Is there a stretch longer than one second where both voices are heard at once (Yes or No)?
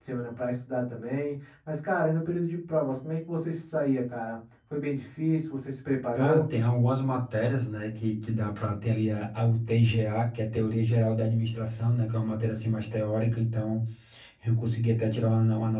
No